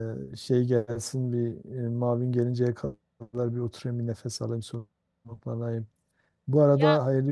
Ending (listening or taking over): listening